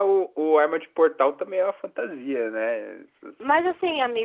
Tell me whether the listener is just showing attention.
No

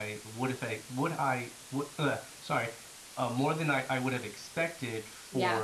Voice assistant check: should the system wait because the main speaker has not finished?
Yes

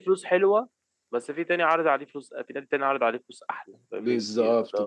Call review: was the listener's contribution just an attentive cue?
No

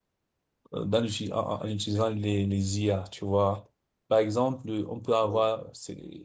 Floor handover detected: No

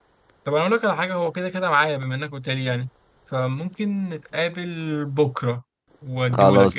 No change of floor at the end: No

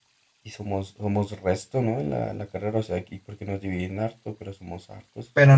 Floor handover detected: Yes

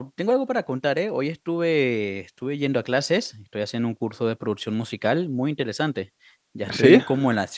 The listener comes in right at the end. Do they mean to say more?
No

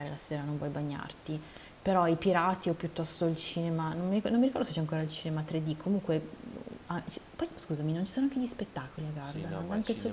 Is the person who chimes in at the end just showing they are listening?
No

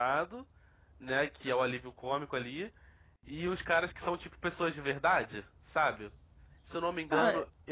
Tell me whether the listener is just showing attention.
Yes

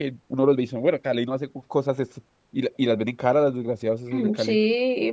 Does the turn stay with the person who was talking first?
No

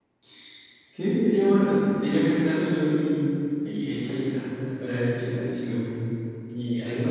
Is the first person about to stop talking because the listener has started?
Yes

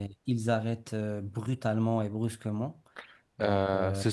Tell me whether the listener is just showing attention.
No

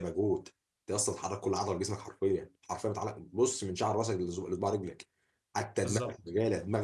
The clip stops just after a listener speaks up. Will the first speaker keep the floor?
Yes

